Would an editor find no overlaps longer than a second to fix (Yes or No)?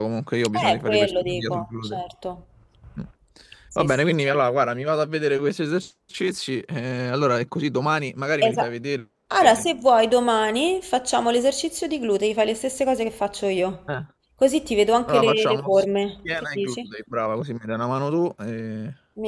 No